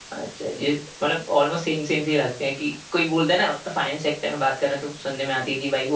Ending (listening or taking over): listening